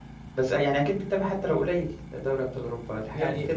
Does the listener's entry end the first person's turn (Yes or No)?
Yes